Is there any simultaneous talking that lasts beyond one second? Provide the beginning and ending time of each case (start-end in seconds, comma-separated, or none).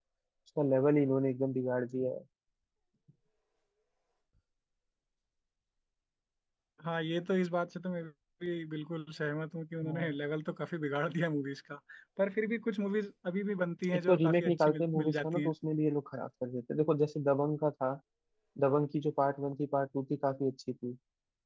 13.9-15.5